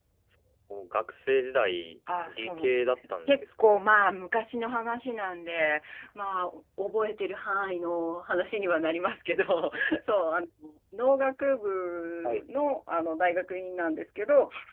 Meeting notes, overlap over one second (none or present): present